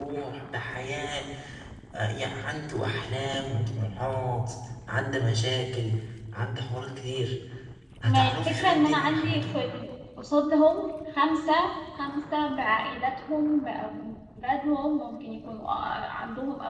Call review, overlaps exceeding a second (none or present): present